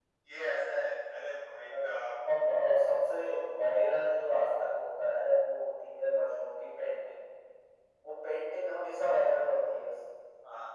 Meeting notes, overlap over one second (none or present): none